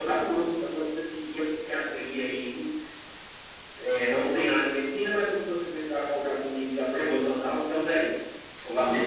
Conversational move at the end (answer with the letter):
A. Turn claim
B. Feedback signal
A